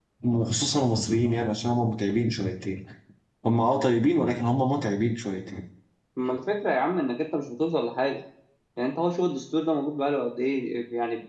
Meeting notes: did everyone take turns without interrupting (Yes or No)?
Yes